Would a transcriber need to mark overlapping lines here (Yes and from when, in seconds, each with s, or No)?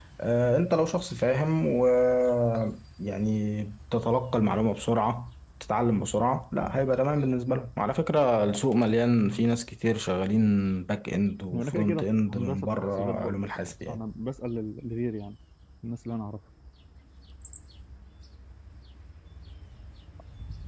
Yes, from 11.5 s